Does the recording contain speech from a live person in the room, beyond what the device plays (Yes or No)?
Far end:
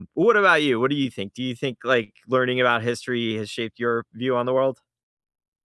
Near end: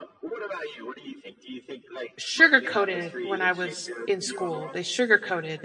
Yes